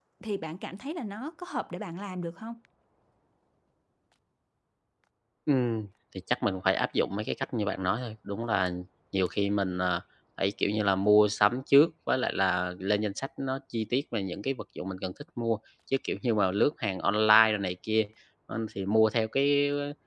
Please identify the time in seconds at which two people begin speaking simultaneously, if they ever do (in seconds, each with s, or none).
none